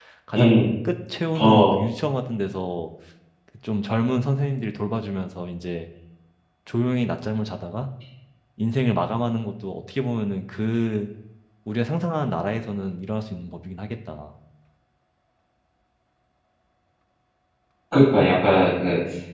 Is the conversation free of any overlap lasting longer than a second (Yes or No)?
Yes